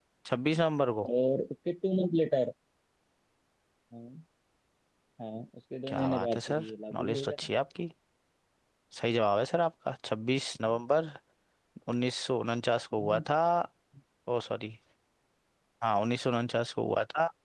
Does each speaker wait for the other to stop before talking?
No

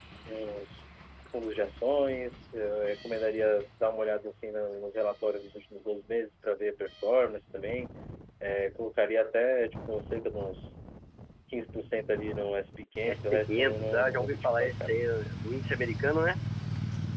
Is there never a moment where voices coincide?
No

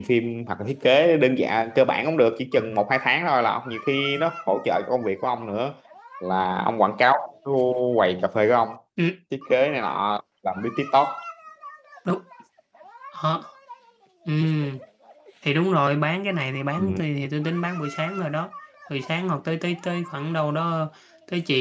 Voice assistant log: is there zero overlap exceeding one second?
Yes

